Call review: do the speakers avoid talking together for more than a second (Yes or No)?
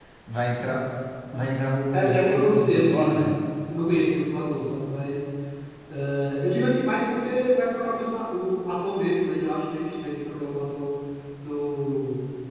No